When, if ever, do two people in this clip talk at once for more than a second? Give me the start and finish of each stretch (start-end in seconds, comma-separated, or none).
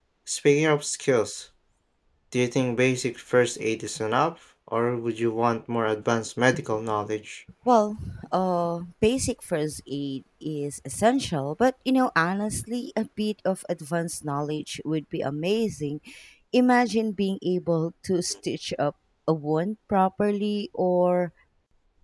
none